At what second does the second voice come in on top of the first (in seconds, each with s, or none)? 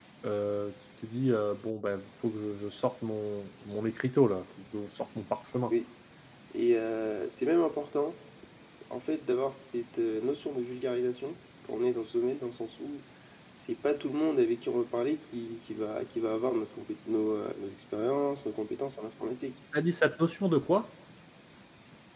none